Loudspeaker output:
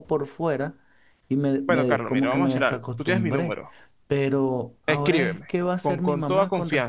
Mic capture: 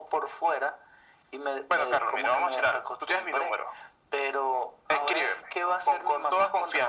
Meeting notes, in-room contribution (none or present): none